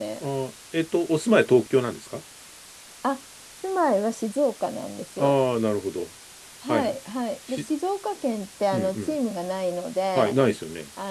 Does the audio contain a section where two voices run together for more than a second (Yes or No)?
No